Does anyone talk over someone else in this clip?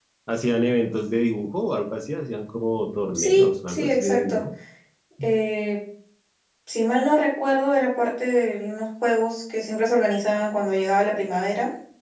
Yes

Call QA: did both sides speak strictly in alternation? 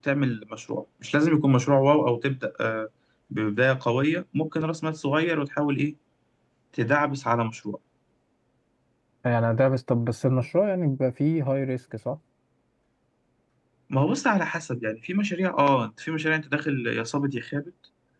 Yes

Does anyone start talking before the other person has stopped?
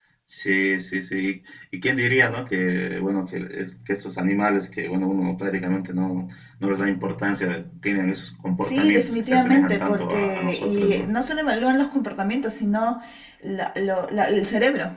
Yes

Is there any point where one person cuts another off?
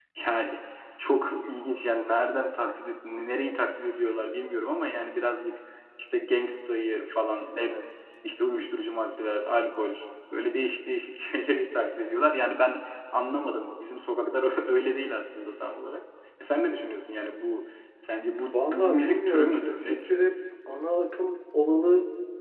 Yes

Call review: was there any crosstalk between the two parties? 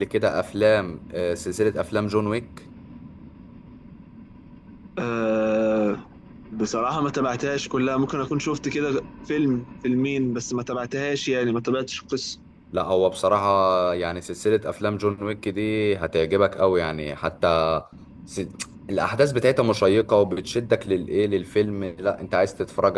No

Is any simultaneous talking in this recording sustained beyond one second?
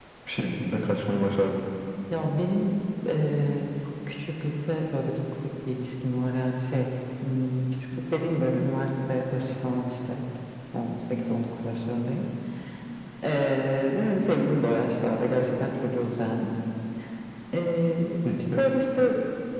No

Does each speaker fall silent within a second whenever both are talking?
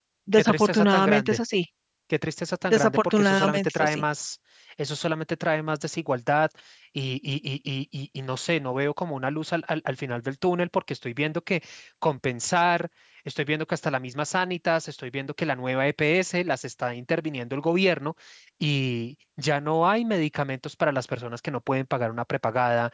No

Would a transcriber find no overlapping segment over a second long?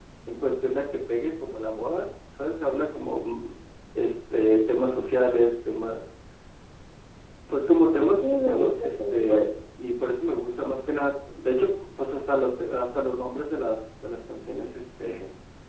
No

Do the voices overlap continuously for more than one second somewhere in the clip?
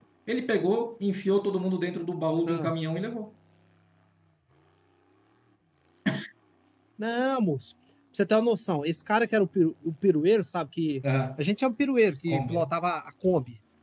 No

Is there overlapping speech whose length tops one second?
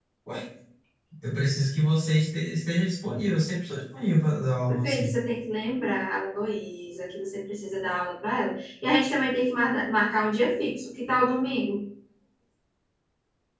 No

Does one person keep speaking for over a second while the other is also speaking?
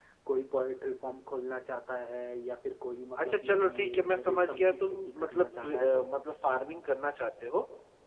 Yes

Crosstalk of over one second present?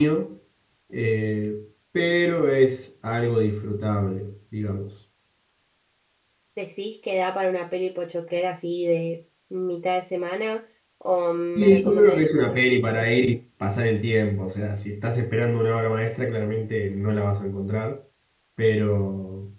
Yes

